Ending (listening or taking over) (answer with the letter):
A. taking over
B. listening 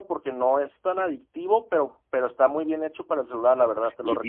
A